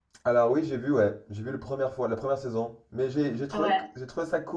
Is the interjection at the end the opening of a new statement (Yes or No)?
No